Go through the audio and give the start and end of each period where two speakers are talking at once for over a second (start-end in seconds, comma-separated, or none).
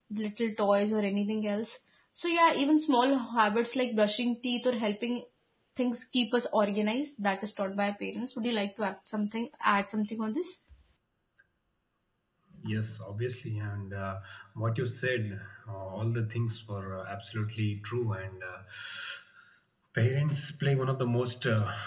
none